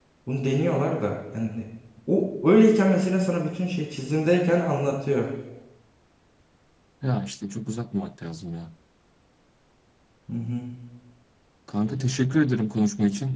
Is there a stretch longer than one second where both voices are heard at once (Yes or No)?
No